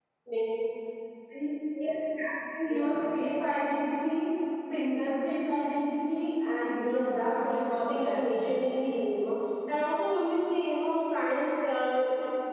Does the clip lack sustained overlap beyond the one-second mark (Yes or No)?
No